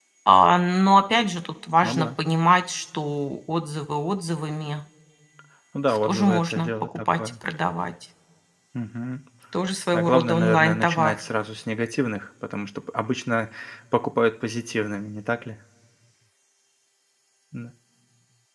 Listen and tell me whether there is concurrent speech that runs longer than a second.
Yes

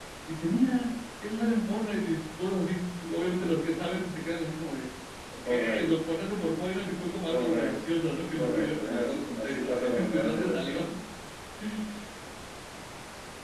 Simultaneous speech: Yes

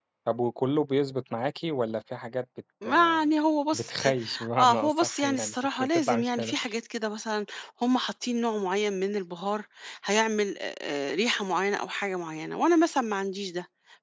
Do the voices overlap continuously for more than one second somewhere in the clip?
Yes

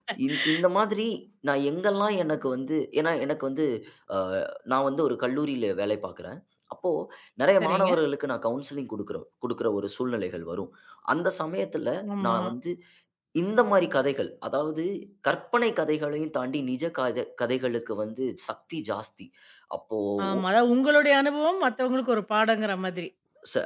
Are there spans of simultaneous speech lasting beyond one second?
No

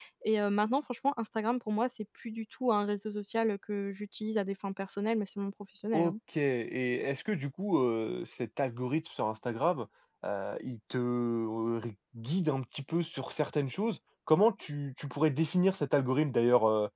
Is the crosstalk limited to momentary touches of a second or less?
Yes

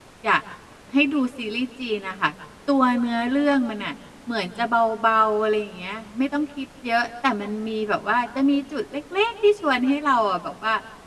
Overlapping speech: No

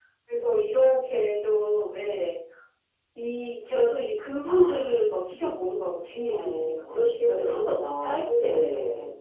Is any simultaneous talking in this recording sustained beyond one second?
Yes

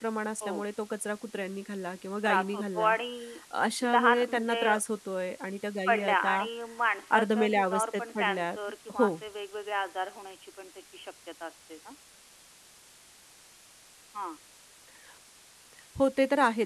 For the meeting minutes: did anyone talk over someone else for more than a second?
Yes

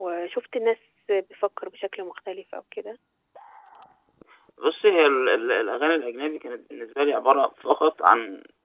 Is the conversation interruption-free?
Yes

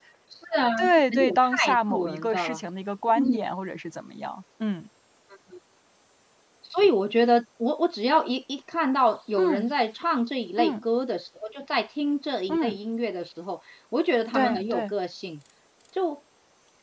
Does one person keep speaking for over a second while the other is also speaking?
Yes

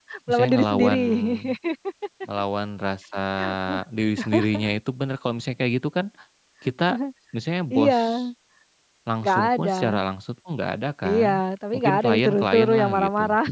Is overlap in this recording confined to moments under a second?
No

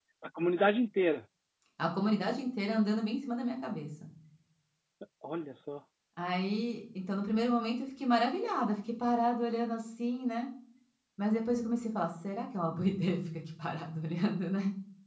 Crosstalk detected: No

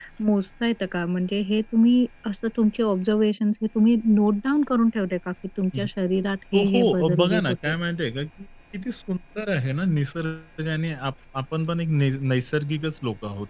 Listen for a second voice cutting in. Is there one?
Yes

